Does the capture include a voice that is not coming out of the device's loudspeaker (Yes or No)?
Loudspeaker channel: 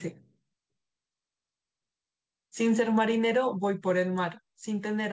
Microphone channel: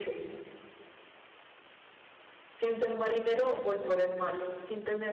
Yes